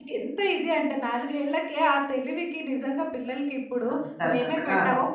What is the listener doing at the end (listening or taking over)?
listening